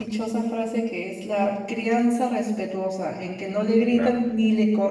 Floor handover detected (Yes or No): No